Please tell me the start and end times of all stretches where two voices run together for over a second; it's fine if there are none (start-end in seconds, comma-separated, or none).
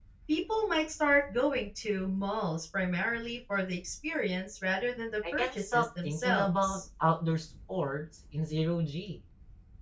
5.3-6.8